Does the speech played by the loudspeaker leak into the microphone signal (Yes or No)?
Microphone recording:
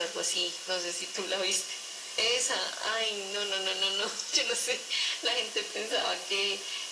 Yes